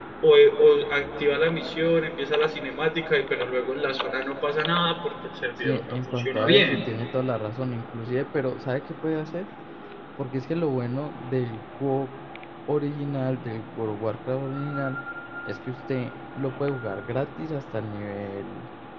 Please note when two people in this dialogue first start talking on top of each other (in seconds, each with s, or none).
5.6 s